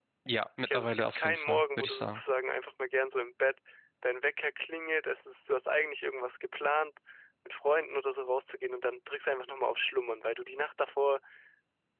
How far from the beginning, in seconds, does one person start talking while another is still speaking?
1 s

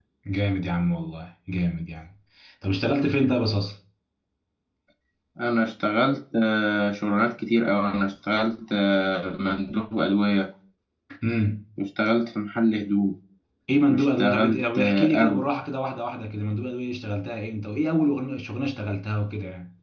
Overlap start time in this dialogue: 14 s

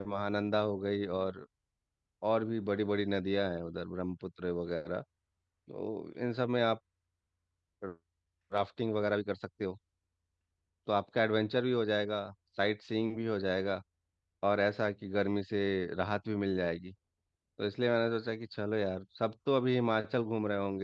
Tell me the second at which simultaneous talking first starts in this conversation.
none

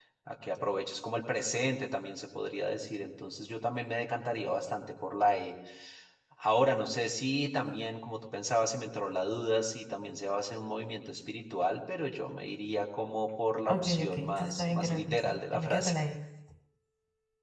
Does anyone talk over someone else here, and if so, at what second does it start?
14 s

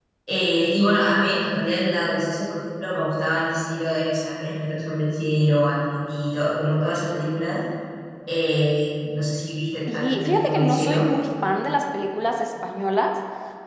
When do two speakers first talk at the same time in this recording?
10 s

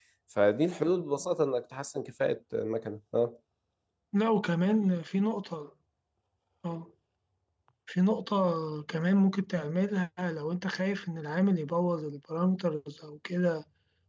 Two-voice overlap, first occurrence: none

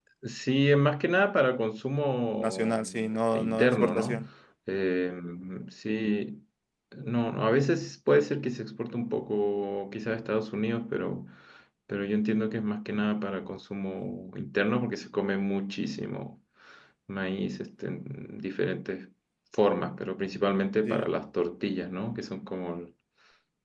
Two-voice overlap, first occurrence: 2 s

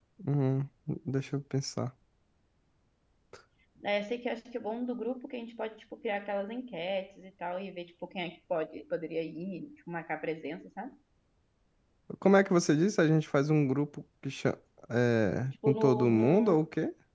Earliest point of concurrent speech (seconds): 15 s

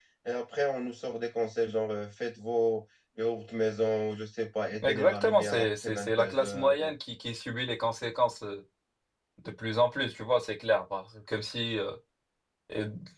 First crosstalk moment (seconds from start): 5 s

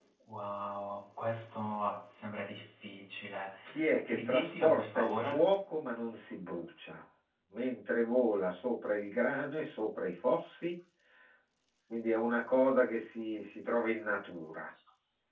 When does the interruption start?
4 s

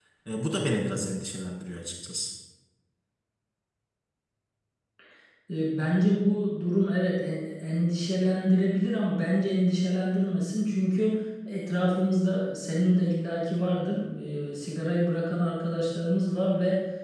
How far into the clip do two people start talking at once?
none

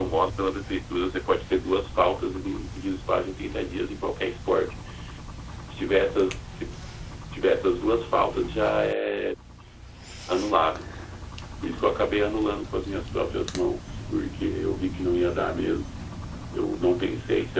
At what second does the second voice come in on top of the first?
none

